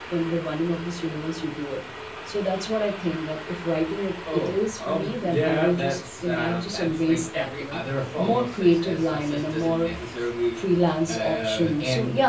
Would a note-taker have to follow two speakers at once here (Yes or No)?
Yes